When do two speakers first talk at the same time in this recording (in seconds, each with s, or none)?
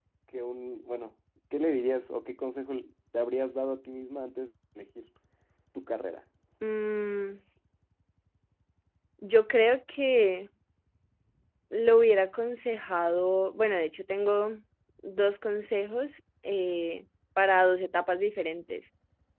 none